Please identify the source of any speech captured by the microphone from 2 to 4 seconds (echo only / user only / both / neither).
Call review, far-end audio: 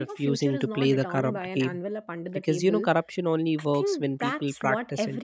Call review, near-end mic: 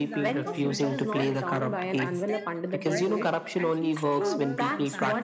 both